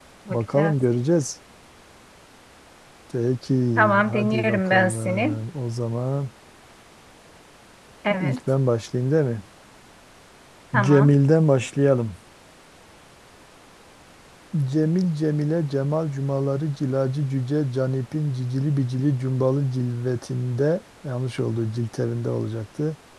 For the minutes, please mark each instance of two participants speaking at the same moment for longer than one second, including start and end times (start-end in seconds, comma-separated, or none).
3.8-5.4